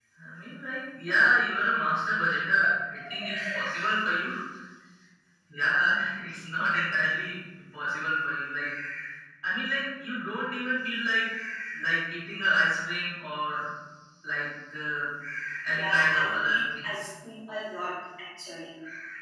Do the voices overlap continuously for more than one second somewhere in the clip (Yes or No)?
Yes